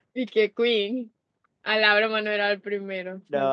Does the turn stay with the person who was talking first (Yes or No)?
No